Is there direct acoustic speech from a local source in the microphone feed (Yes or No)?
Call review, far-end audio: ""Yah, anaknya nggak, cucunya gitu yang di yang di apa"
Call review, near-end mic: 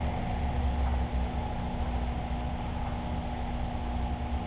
No